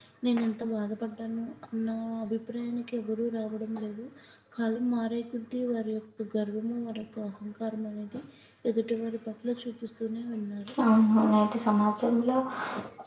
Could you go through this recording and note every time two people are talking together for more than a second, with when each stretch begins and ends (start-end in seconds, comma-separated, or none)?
none